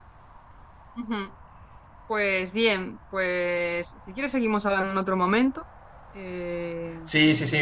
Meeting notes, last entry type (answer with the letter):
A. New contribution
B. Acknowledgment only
A